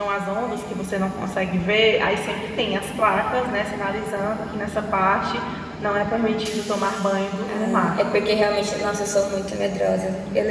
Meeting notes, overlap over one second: none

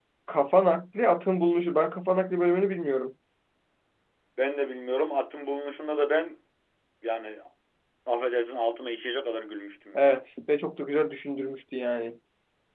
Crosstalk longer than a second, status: none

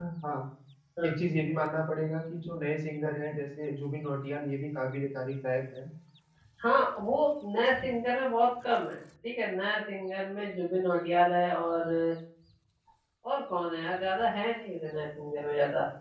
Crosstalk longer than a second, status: none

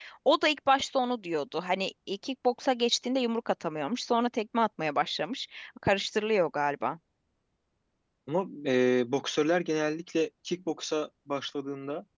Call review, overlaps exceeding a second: none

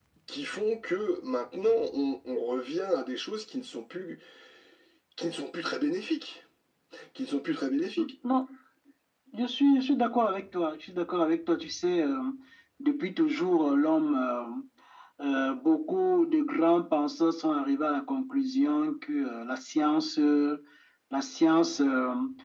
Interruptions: none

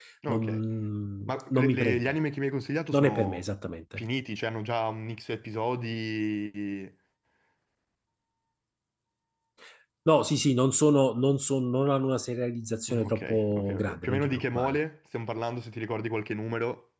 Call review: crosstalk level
present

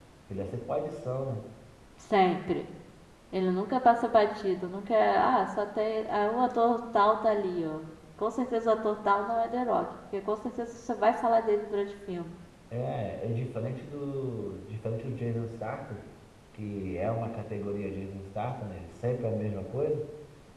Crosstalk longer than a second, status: none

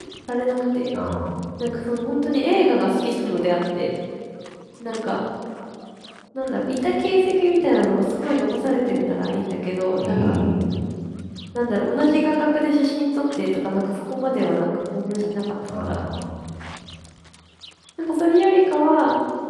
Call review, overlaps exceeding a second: none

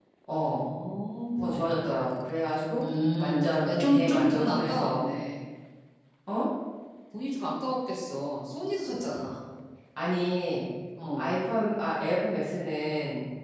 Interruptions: present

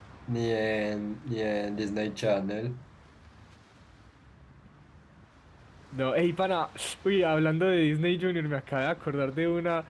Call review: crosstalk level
none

